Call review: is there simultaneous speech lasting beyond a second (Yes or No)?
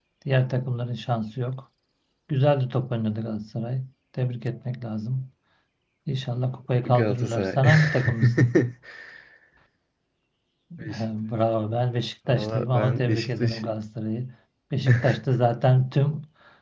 Yes